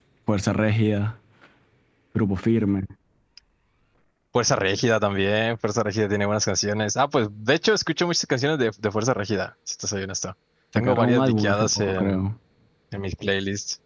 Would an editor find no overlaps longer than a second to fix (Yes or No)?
No